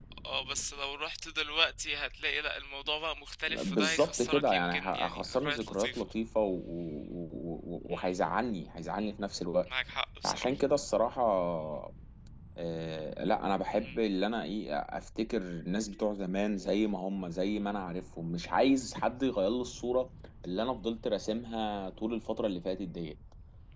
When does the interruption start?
3 s

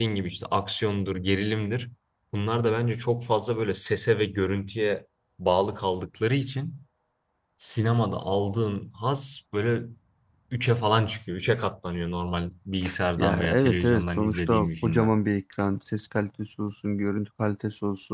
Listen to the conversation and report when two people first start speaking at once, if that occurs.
13 s

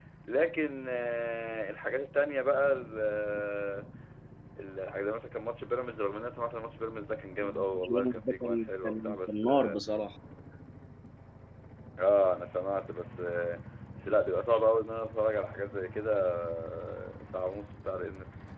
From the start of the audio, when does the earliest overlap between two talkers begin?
7 s

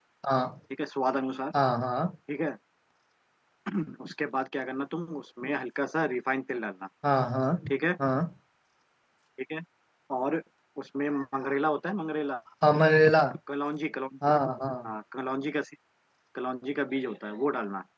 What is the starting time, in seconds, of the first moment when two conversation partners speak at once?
none

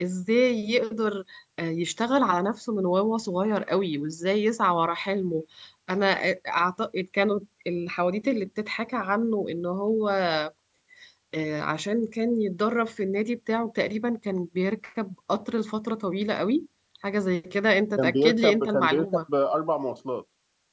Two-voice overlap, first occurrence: 18 s

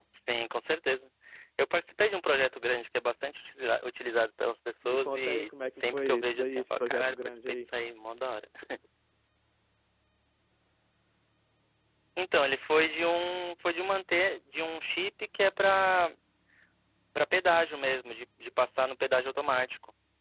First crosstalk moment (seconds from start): 5 s

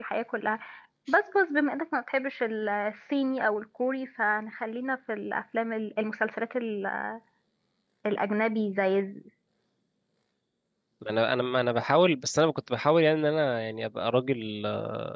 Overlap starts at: none

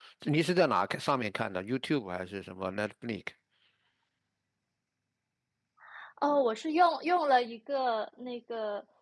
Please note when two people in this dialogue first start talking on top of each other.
none

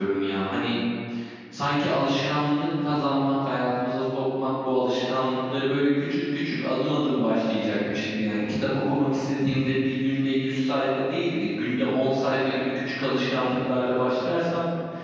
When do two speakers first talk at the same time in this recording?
none

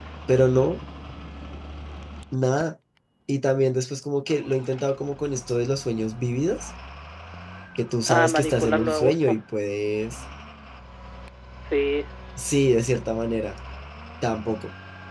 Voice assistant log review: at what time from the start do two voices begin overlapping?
8 s

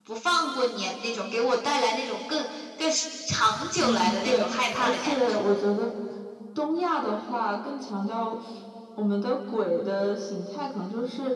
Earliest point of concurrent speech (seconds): 4 s

